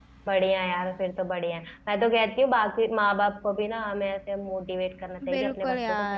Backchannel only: No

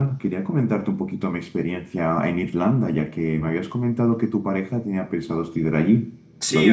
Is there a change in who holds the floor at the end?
Yes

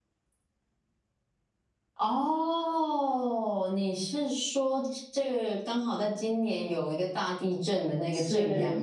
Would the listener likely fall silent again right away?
No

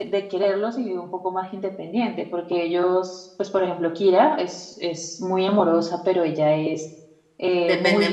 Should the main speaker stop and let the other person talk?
No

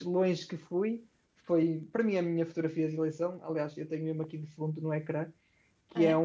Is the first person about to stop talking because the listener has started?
No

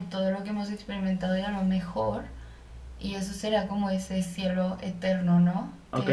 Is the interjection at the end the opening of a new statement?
Yes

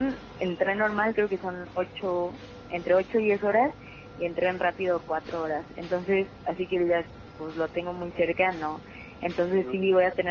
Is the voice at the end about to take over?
No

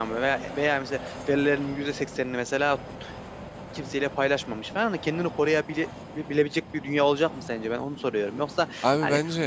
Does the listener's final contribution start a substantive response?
No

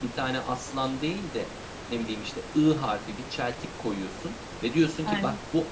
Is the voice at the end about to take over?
No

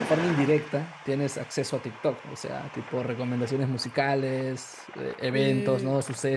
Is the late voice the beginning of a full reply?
No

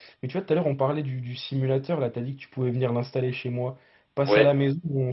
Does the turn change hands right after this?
No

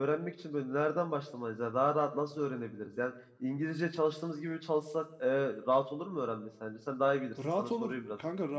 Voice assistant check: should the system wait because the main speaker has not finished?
No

